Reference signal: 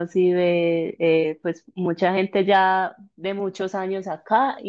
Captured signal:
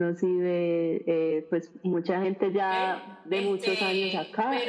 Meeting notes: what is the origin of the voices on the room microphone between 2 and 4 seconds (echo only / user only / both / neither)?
both